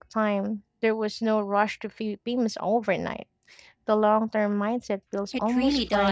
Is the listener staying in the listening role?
No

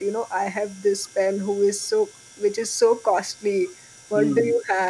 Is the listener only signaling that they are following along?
Yes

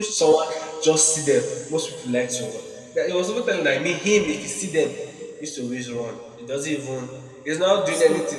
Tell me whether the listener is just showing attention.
Yes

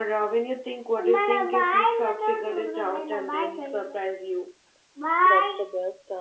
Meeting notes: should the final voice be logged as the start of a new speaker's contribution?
Yes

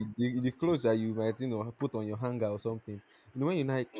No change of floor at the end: Yes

